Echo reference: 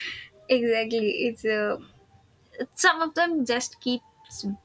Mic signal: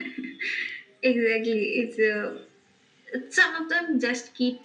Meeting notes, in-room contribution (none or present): none